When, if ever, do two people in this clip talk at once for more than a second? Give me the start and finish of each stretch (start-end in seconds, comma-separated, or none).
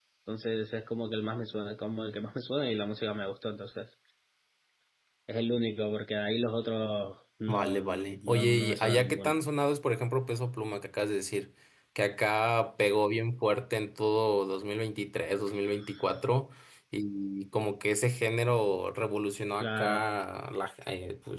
7.5-9.3